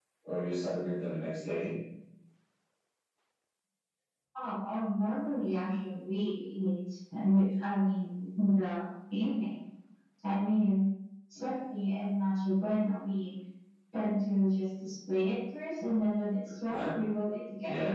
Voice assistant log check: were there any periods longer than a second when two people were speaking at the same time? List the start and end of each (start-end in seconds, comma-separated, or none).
none